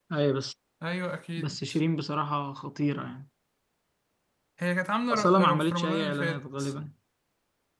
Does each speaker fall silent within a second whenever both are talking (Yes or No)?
No